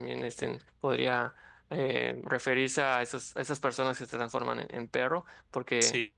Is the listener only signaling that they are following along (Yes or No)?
No